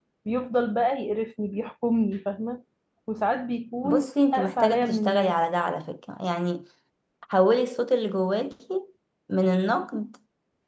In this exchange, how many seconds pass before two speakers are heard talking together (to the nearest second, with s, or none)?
4 s